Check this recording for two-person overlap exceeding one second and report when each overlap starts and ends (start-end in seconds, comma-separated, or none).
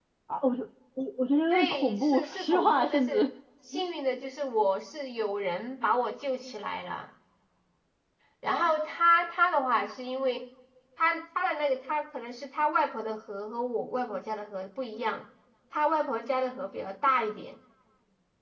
1.5-3.3